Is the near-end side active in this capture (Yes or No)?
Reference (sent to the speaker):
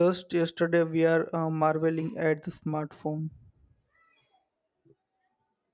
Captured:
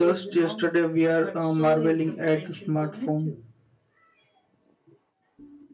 Yes